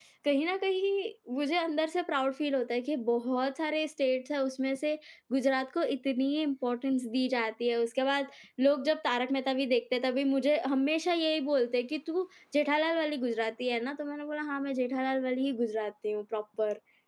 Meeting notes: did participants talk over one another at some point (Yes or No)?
No